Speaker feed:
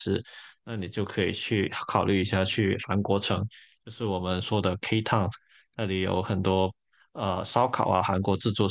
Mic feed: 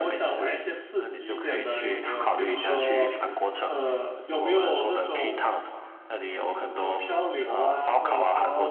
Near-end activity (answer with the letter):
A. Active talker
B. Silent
A